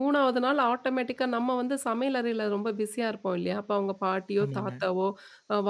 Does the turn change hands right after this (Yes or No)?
No